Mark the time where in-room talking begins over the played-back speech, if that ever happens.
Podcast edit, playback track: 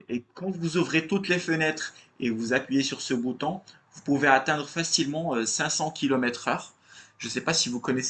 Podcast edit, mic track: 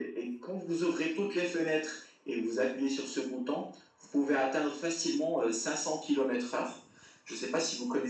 none

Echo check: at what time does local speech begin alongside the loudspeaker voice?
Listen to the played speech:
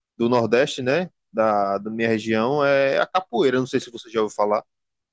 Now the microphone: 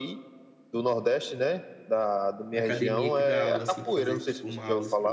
2.5 s

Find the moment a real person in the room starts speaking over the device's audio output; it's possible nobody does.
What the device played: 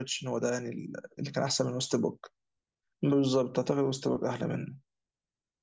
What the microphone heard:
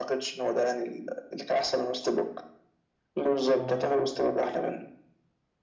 3.5 s

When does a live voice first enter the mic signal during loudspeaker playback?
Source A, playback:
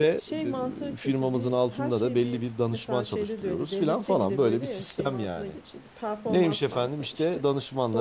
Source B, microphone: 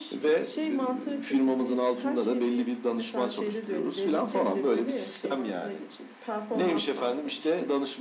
none

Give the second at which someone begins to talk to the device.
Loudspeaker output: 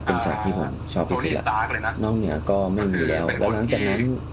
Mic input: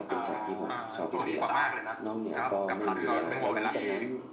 0.7 s

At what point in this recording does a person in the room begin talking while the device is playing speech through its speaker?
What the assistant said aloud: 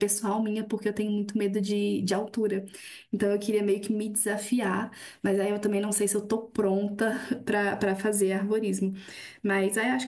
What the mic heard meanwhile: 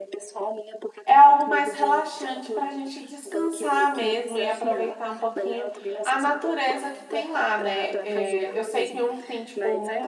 1.1 s

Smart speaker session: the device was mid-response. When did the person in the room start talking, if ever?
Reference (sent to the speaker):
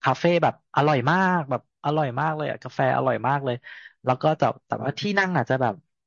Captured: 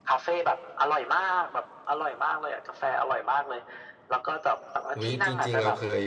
5.0 s

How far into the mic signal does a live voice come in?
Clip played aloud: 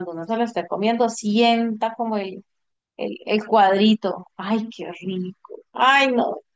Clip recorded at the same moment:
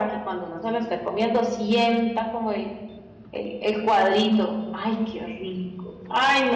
none

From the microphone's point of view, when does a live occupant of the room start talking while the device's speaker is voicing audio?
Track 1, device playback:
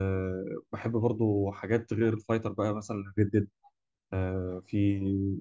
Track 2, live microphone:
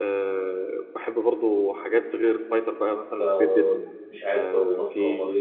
3.2 s

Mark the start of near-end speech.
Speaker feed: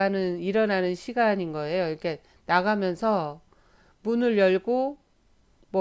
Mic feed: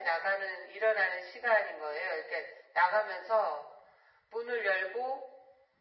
none

